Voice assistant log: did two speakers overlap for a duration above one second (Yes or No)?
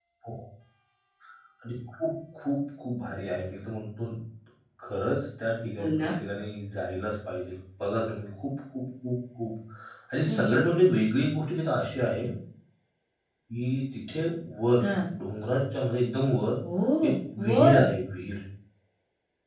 No